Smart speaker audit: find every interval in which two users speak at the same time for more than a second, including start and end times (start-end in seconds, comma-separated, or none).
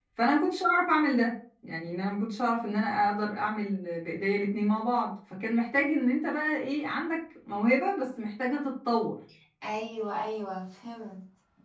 none